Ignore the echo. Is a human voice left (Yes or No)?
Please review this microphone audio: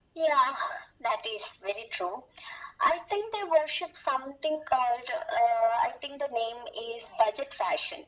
No